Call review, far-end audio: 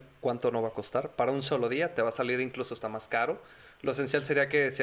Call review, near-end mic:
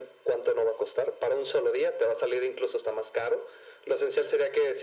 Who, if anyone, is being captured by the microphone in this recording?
echo only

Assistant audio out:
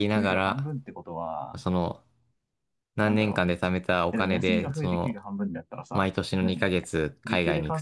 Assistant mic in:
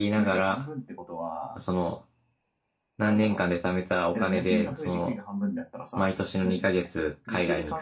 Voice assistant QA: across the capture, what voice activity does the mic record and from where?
echo only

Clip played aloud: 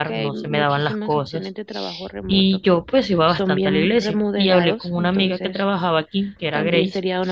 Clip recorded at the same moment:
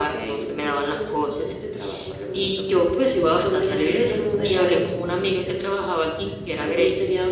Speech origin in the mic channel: echo only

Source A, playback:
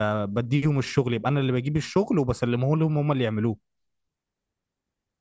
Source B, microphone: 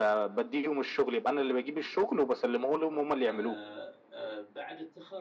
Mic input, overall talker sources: both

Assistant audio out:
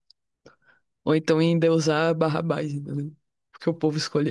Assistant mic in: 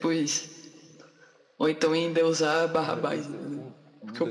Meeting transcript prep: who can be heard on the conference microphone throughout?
both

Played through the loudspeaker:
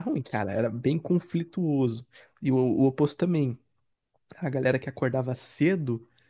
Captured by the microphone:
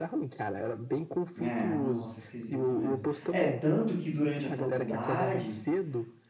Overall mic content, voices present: both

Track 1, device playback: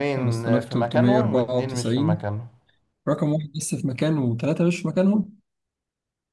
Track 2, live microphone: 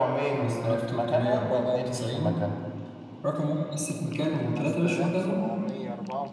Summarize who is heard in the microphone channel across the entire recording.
both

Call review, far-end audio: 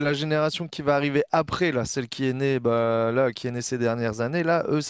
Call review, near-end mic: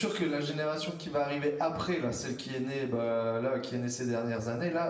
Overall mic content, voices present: echo only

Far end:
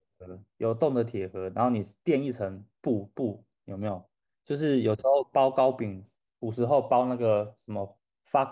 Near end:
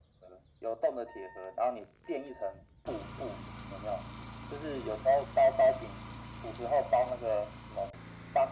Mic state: echo only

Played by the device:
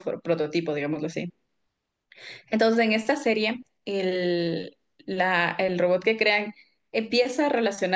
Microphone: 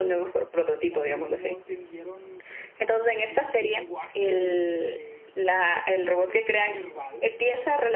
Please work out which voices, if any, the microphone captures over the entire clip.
both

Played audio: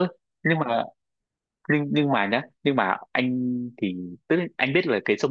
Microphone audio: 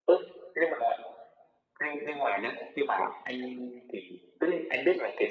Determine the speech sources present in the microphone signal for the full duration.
echo only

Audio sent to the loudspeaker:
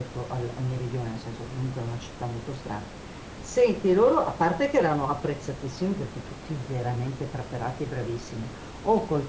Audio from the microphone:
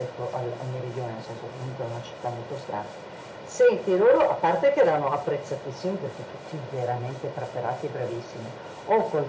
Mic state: echo only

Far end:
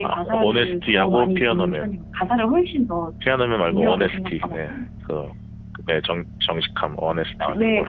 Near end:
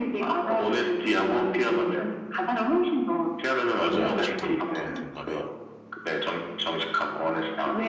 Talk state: both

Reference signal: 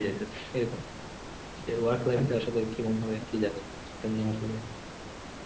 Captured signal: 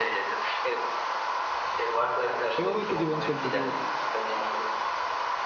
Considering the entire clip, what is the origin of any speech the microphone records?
both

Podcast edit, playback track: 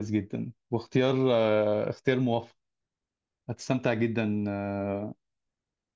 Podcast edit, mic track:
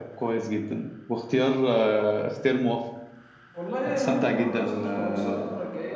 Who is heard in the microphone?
both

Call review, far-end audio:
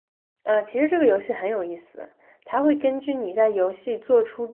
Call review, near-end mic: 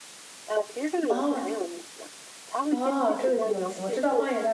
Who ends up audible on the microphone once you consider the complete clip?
both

